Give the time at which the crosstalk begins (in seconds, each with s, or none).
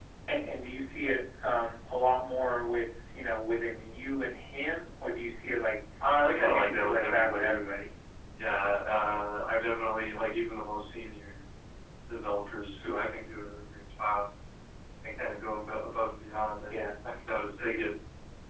6.4 s